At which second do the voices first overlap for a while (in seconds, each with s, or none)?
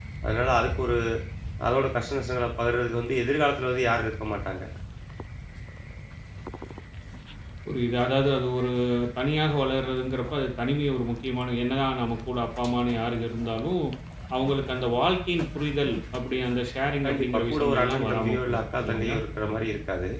17.0 s